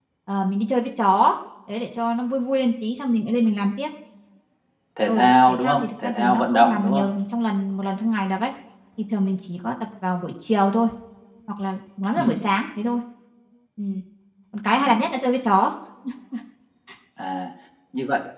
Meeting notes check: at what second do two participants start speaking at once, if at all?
5.1 s

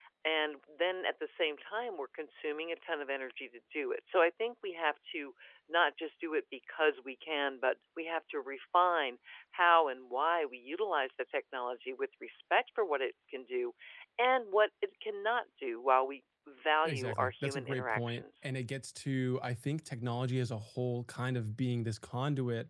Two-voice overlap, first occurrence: 16.9 s

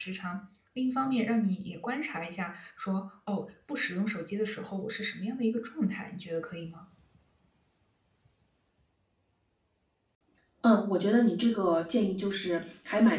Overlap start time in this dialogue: none

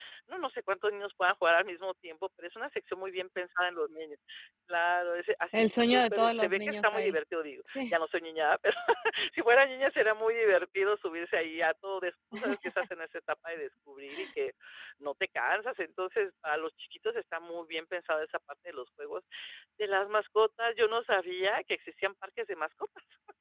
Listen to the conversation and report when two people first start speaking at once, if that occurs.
5.5 s

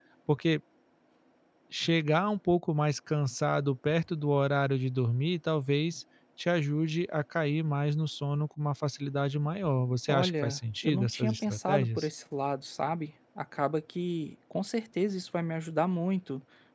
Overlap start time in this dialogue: 10.1 s

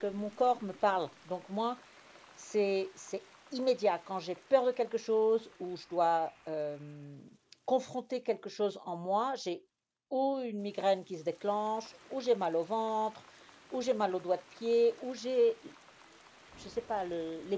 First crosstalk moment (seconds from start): none

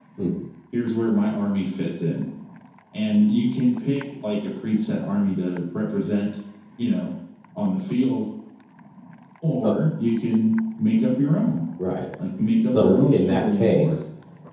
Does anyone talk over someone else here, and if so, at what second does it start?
12.7 s

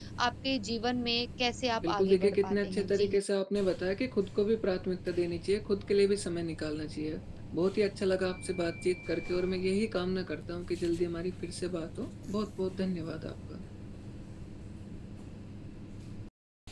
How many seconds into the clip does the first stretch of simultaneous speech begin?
1.8 s

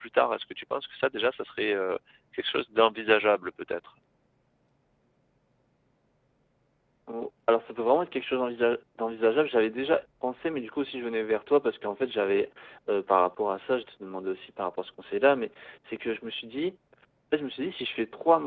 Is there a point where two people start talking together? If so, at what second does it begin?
none

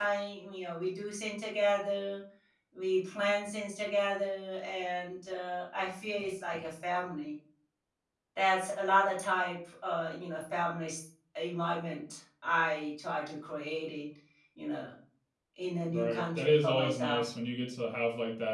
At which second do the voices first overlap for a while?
15.9 s

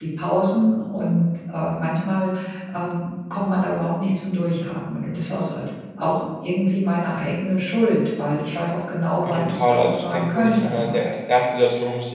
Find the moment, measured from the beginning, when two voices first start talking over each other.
9.2 s

